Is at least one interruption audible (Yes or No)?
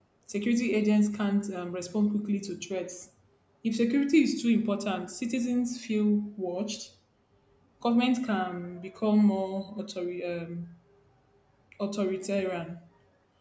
No